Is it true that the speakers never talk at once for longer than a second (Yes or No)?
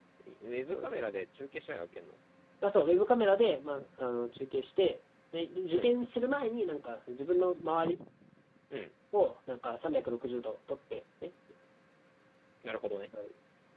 Yes